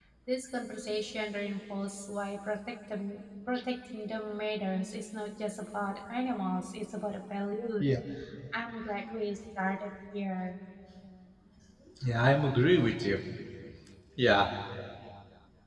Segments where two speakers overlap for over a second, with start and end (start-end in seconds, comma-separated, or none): none